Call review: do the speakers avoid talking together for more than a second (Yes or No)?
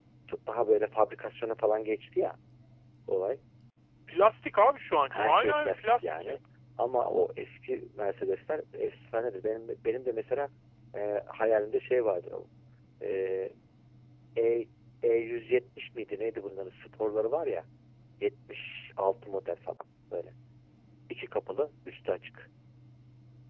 No